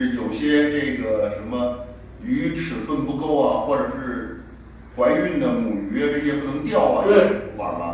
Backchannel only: No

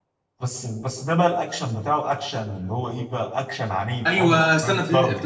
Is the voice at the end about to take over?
Yes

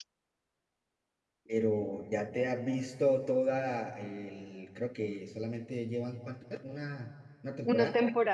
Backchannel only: No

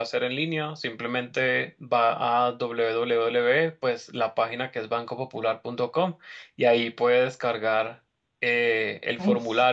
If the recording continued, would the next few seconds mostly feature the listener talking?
No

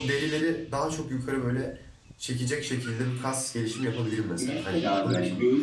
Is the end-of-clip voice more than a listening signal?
Yes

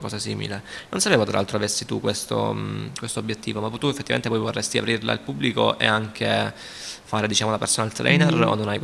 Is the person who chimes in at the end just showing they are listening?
No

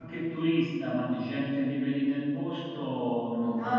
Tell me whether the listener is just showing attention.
No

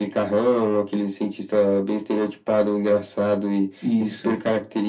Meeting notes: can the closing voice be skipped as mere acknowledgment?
Yes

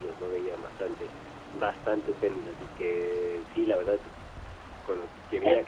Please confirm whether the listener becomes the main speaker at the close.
Yes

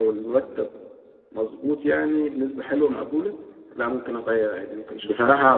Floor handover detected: Yes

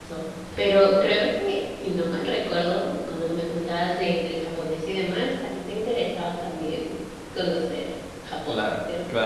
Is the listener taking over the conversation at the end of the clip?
Yes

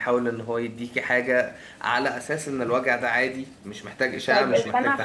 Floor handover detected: Yes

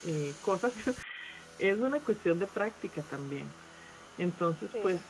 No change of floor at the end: Yes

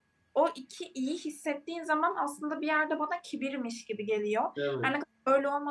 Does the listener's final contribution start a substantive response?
No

